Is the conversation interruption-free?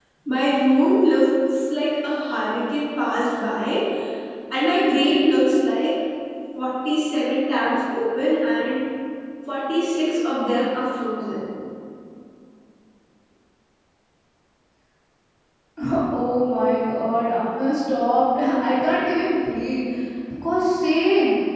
Yes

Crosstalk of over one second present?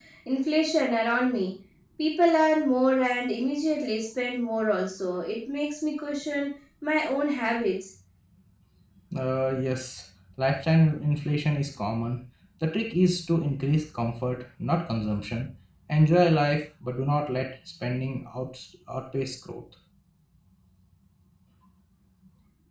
No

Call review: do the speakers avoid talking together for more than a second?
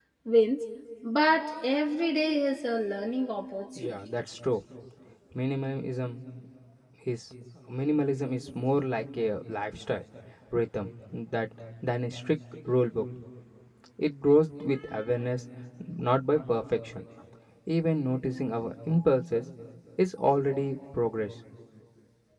Yes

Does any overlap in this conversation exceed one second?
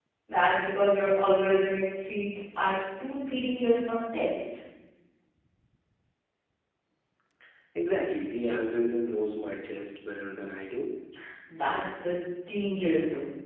No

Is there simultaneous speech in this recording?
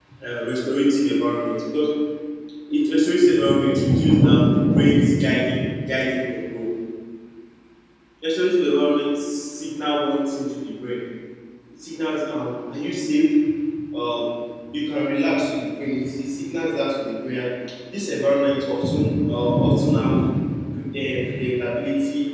No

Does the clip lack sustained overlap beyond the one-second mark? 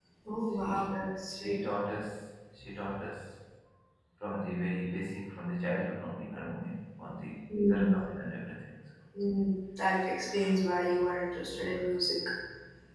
Yes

